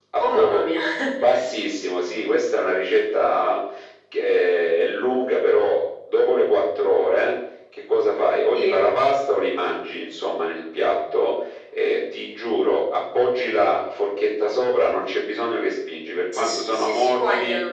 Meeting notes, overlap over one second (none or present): present